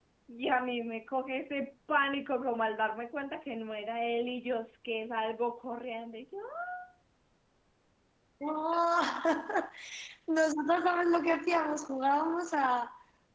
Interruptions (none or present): none